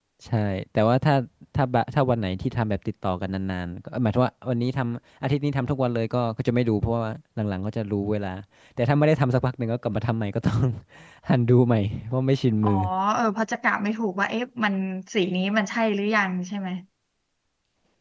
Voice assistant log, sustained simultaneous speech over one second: none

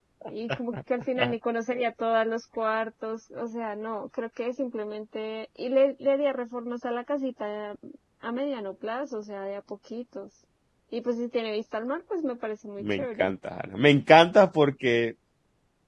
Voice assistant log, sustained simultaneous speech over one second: none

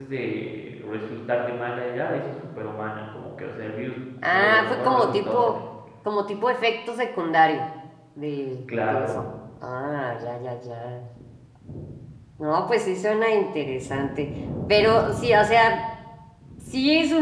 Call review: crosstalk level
present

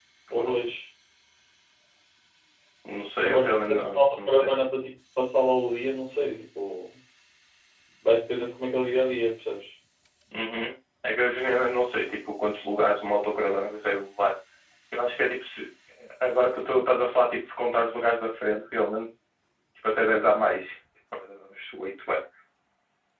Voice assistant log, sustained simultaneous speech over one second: present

